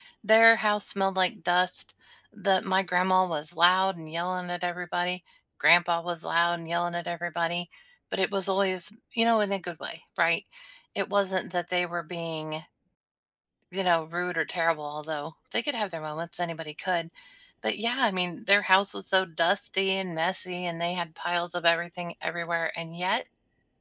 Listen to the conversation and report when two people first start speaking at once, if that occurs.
none

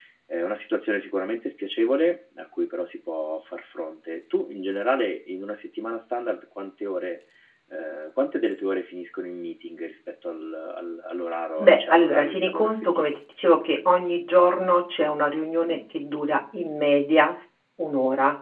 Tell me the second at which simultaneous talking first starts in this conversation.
11.6 s

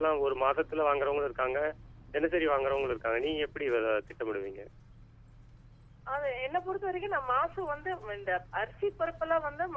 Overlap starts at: none

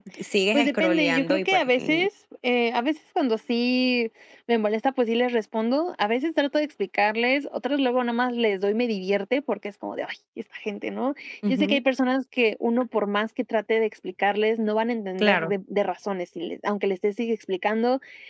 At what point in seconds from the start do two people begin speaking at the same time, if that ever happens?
0.5 s

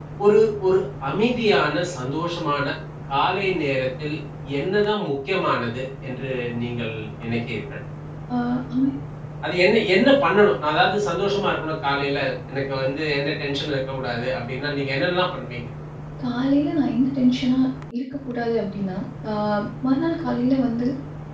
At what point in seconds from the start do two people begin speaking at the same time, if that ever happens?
none

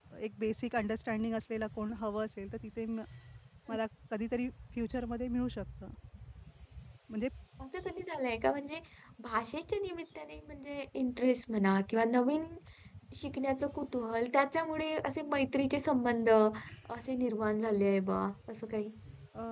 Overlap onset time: none

